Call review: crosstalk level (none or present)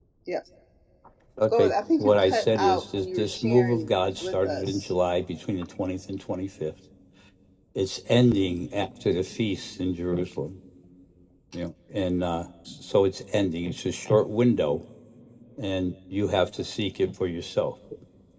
present